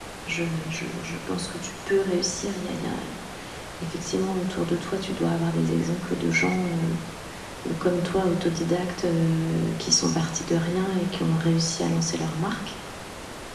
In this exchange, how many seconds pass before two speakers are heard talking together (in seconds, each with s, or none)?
none